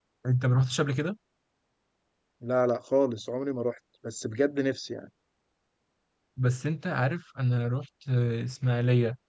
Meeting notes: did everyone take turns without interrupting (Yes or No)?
Yes